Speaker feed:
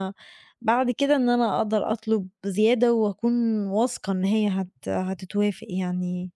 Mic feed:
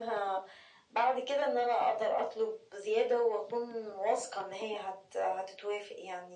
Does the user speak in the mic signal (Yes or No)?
No